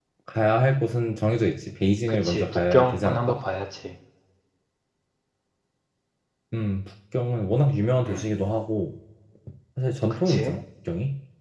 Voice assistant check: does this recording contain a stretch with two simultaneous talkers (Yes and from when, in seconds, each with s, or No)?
Yes, from 2.1 s